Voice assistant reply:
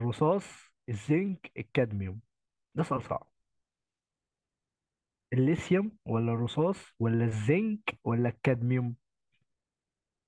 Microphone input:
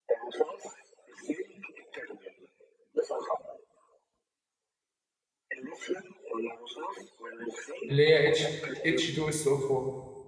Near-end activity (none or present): present